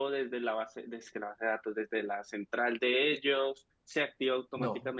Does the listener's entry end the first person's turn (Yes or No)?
No